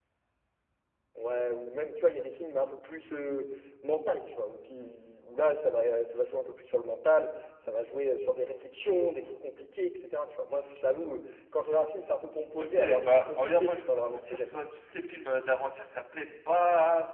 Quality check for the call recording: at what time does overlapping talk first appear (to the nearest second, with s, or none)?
13 s